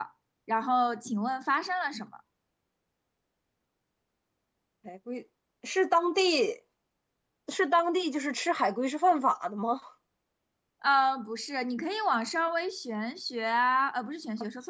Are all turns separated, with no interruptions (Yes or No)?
Yes